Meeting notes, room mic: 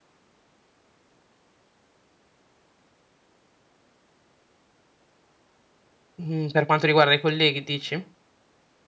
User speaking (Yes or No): Yes